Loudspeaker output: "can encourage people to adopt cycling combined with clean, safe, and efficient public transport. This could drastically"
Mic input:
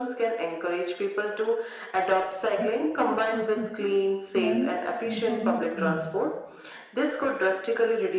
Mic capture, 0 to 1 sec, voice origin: echo only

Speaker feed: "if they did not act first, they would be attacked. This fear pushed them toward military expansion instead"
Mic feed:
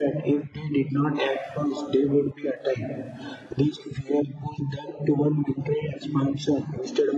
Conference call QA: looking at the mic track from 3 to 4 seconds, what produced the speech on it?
echo only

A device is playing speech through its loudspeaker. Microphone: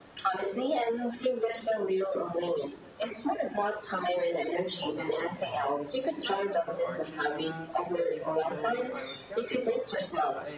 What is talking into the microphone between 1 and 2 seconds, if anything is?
echo only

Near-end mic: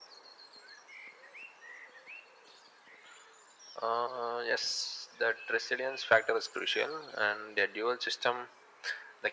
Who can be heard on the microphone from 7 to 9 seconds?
echo only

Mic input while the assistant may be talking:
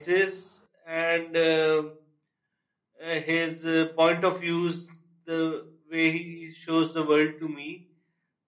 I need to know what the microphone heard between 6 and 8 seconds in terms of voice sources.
echo only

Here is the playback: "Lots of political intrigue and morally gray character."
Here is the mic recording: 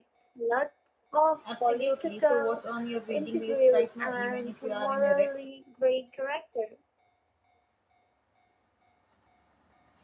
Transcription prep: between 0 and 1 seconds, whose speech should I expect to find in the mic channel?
echo only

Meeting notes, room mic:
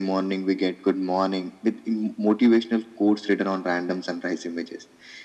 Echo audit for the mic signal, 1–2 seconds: echo only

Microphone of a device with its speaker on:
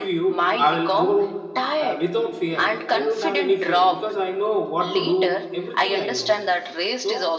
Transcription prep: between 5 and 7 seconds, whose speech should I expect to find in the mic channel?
both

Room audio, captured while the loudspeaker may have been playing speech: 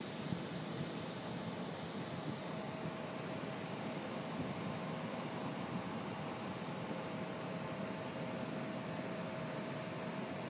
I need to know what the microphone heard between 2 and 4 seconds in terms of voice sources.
neither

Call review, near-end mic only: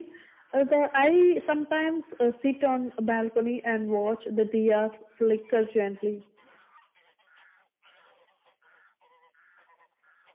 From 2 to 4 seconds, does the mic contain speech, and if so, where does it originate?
echo only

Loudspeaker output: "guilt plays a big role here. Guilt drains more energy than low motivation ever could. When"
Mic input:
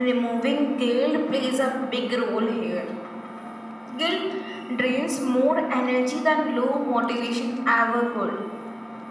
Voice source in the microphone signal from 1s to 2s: echo only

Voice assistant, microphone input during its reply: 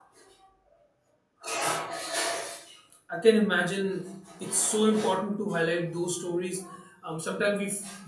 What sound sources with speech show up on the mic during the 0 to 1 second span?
neither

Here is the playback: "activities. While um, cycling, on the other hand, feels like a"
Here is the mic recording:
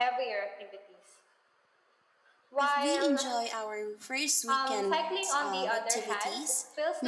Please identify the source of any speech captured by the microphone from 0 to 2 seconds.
echo only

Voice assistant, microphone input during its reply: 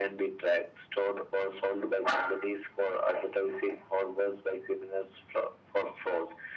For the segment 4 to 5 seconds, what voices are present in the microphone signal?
echo only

